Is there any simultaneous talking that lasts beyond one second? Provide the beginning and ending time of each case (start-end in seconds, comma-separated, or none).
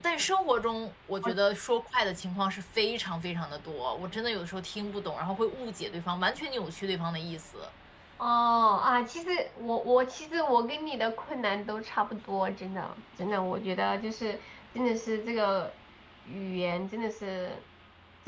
none